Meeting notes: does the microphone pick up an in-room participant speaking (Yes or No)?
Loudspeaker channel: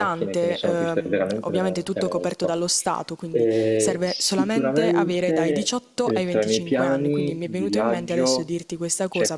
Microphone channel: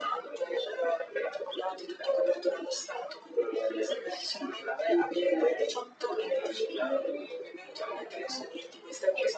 No